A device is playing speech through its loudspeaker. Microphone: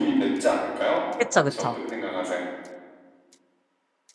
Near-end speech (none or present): present